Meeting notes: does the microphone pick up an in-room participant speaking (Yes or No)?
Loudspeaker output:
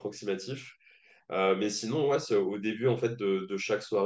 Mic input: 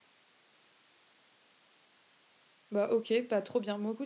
Yes